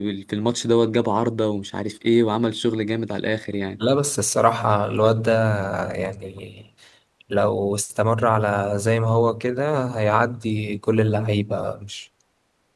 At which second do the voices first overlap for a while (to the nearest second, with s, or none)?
none